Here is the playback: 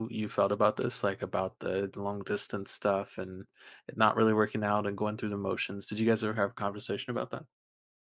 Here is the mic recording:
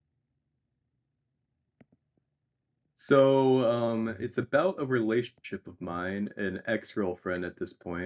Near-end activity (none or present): present